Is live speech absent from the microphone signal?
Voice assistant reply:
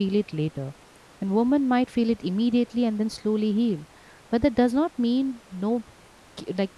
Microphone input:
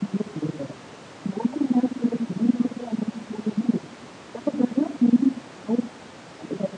Yes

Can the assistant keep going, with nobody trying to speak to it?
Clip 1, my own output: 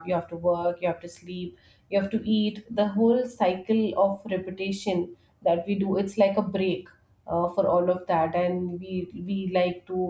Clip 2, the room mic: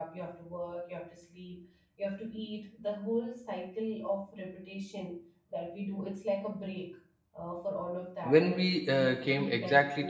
No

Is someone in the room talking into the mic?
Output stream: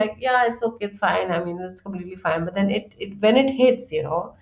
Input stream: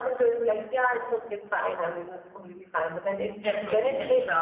Yes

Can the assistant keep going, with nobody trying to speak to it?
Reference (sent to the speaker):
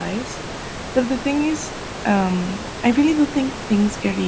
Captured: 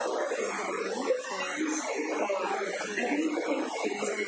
No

